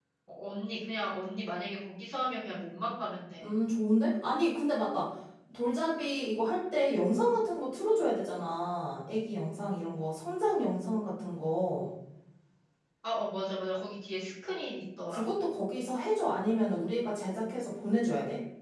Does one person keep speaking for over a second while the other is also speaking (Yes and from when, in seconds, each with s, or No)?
No